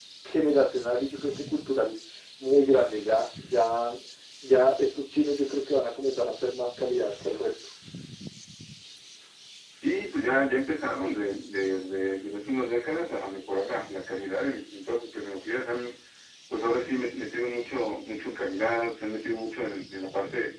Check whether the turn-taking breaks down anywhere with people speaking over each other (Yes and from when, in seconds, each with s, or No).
No